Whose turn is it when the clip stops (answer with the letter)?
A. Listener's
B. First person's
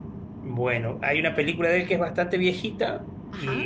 B